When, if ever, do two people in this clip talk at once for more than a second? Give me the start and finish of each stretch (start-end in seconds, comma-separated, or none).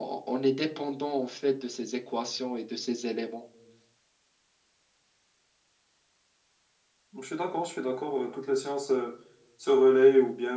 none